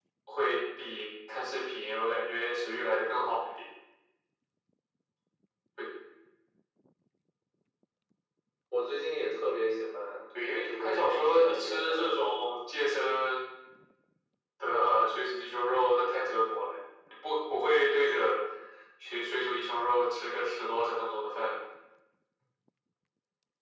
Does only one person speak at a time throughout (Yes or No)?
No